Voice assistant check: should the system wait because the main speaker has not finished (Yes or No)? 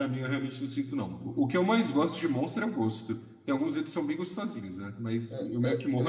No